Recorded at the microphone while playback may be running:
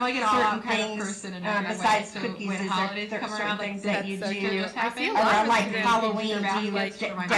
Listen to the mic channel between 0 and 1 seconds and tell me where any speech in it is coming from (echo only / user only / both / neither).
echo only